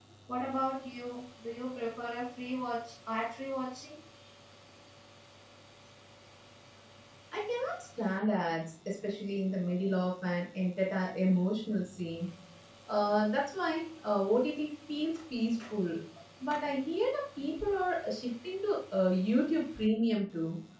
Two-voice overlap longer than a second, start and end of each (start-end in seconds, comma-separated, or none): none